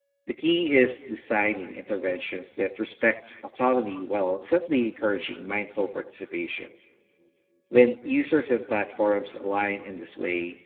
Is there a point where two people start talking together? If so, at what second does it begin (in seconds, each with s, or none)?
none